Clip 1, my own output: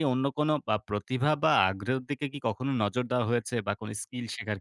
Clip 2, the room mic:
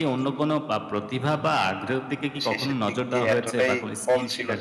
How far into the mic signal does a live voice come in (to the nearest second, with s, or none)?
2 s